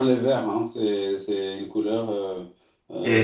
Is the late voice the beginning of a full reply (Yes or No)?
Yes